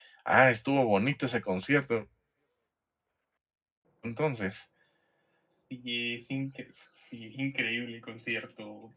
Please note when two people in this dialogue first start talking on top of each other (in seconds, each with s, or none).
none